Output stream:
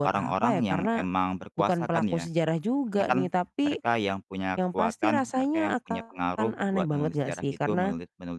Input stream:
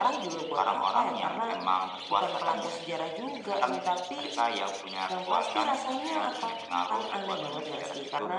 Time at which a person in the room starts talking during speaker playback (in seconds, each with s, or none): none